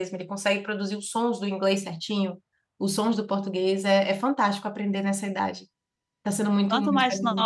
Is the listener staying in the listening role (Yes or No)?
No